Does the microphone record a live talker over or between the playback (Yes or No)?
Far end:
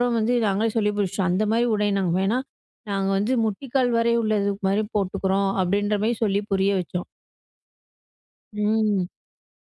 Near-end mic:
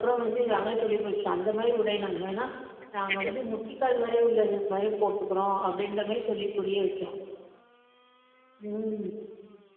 Yes